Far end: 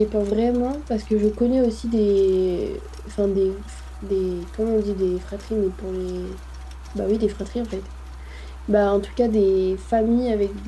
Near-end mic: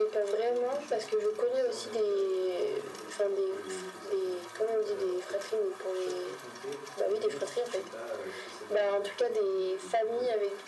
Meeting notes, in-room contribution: present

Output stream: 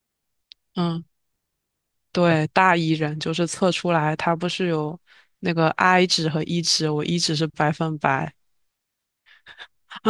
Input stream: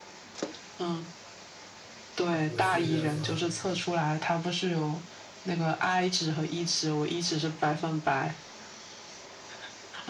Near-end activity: present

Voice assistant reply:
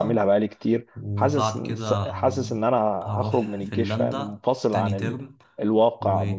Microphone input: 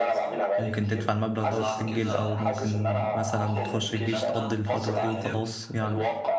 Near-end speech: present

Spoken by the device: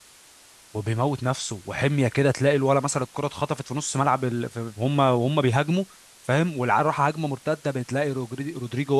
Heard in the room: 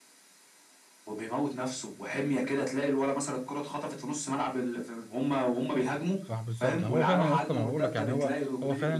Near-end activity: present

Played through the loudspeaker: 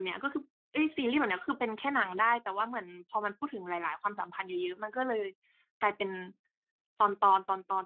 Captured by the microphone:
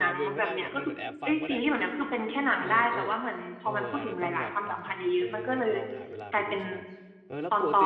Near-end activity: present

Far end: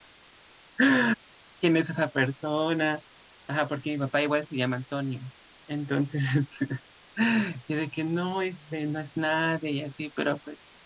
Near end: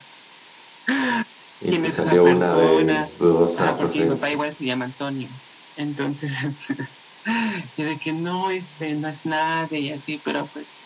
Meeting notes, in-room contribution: present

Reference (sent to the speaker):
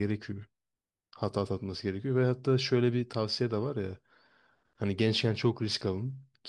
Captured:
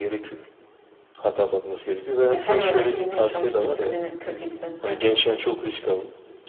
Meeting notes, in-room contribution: present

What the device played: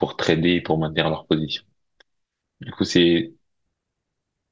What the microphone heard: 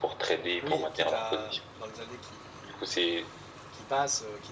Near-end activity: present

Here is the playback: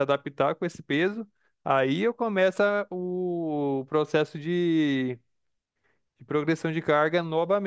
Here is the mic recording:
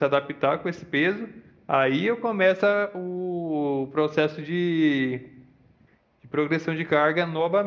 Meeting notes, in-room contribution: none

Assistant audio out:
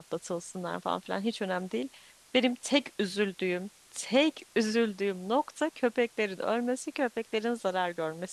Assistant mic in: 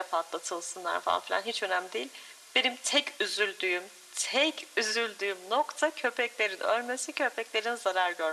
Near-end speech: none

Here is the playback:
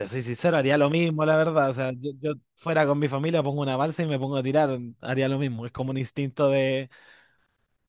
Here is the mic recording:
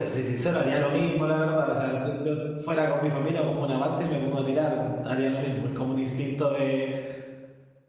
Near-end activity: none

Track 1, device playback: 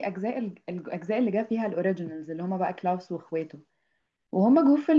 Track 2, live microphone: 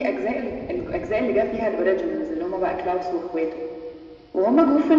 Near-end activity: none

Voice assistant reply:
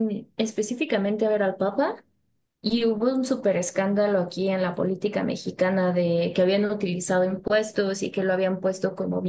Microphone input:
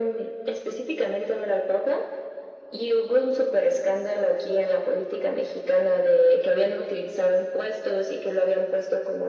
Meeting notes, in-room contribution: none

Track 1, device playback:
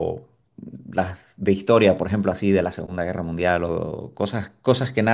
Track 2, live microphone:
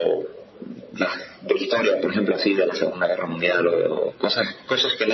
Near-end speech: present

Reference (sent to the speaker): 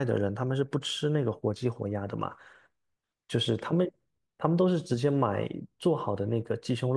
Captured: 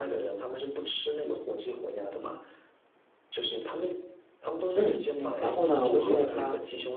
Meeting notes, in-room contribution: present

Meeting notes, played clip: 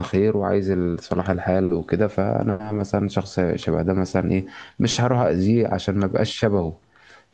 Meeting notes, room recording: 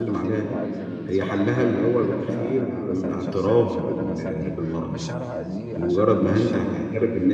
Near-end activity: present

